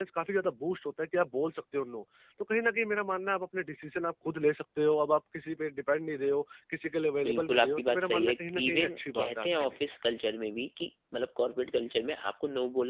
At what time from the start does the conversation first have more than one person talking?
7.2 s

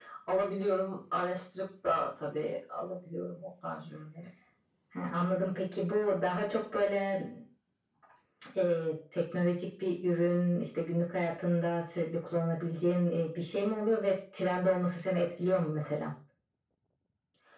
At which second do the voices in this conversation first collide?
none

